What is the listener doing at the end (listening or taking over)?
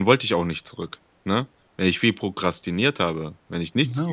listening